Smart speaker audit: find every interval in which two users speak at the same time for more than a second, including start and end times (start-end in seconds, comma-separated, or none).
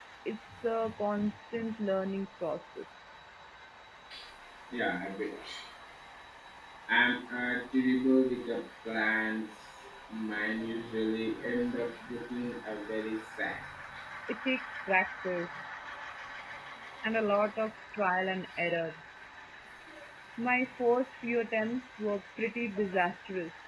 none